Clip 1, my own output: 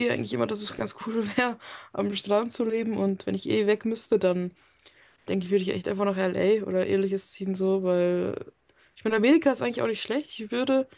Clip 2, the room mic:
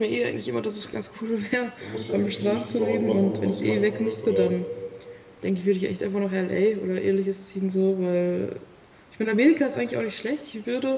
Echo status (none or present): present